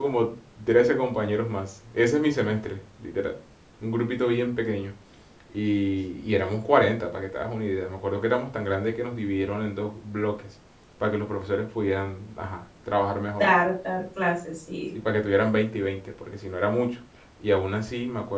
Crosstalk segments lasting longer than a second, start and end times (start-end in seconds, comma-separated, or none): none